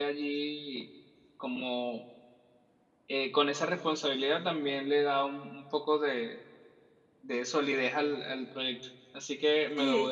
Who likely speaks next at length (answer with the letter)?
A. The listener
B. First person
A